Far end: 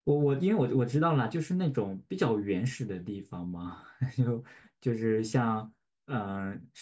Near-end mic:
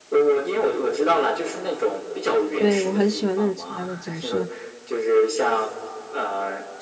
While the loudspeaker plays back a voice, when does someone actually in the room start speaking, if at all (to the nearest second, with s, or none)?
3 s